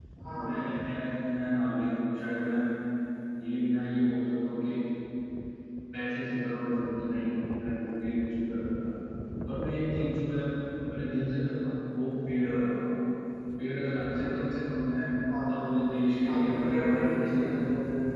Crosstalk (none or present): present